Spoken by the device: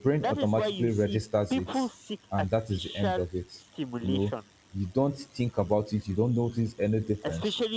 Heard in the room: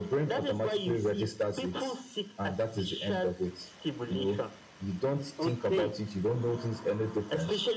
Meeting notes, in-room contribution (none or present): present